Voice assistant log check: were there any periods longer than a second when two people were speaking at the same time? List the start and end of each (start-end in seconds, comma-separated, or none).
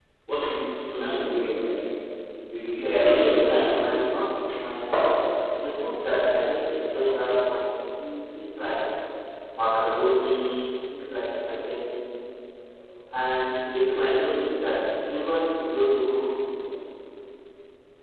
2.6-3.9